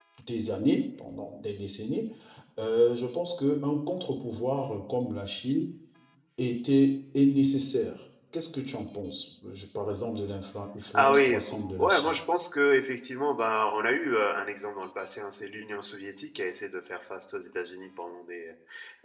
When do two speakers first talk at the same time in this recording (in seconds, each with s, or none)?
10.9 s